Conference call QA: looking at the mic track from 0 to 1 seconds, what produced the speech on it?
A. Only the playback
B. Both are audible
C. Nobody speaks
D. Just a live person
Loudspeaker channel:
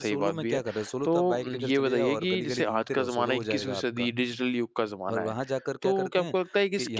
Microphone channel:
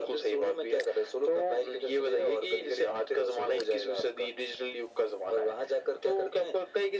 A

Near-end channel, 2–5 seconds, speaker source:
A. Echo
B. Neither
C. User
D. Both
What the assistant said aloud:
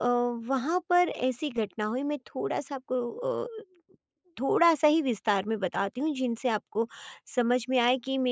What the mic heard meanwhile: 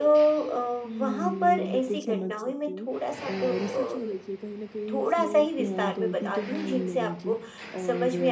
D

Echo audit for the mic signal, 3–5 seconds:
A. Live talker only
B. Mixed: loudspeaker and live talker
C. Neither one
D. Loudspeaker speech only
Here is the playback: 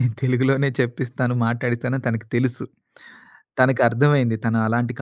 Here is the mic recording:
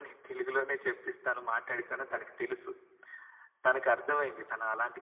D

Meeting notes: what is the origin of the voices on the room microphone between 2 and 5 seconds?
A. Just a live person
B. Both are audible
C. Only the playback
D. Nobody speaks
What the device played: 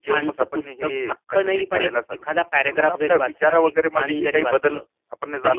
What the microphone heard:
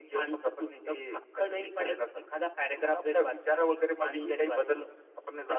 C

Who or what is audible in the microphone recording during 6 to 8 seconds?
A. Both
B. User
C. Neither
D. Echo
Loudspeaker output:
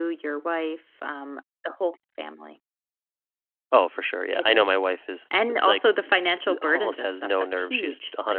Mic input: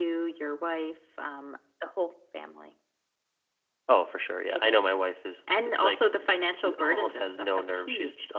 D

